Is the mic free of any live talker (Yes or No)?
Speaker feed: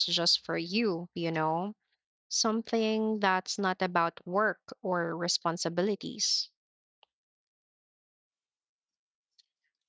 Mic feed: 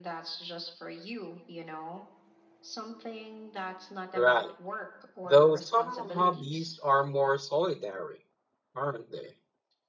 No